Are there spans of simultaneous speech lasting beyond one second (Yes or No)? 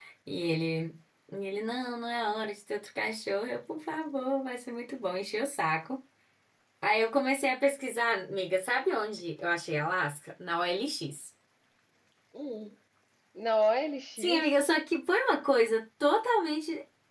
No